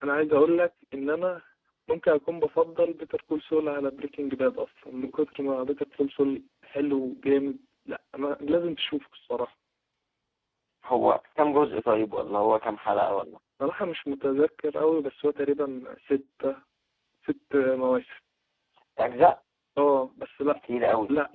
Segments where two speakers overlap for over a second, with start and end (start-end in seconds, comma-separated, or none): none